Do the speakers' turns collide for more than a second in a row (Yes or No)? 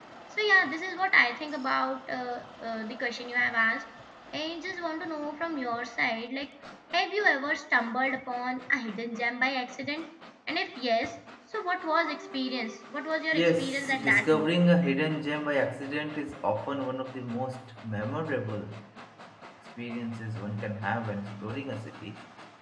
Yes